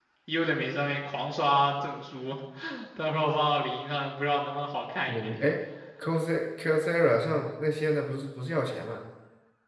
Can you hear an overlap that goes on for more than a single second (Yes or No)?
No